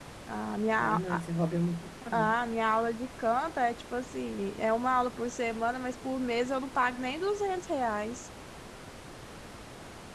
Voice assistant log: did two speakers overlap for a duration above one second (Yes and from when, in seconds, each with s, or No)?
No